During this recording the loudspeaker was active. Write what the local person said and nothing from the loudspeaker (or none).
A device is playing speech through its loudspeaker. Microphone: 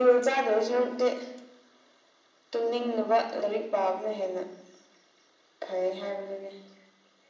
none